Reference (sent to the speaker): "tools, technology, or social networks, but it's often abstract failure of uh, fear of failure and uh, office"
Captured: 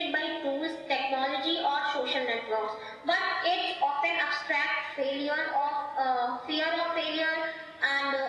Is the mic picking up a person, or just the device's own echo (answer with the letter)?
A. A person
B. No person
B